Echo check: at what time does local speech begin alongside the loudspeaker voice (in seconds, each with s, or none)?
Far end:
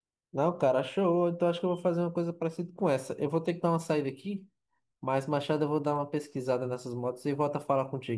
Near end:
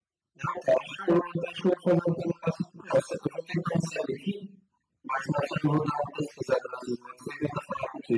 none